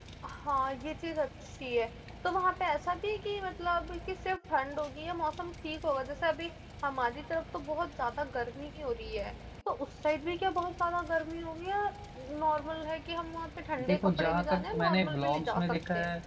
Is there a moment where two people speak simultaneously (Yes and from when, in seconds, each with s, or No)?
Yes, from 13.8 s